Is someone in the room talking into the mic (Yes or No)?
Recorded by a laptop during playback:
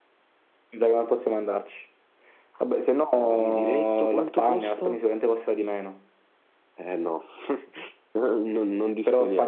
No